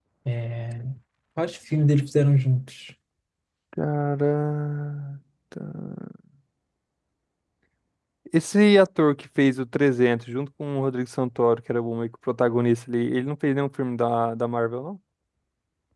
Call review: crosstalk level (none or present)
none